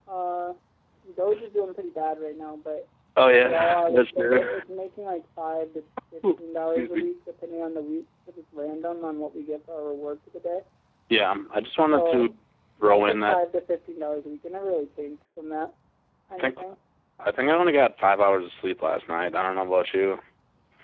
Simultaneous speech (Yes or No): Yes